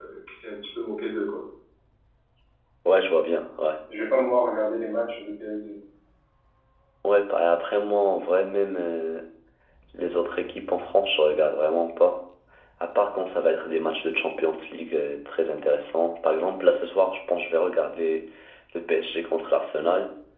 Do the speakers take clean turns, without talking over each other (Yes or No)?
Yes